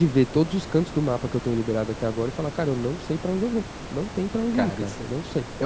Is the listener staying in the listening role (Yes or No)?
No